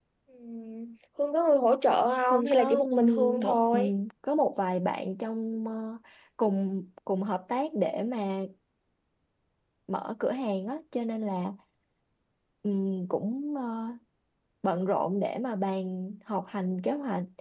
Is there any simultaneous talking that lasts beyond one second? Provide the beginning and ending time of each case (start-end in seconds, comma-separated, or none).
2.3-3.9